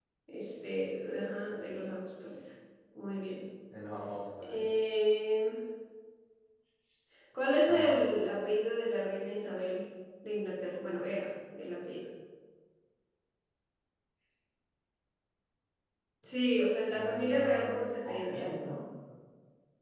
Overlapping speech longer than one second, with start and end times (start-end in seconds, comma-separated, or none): 16.9-18.4